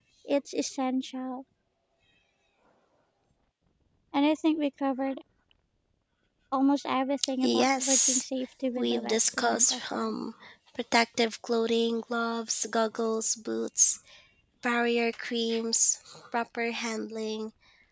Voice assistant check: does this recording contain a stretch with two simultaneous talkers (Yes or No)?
Yes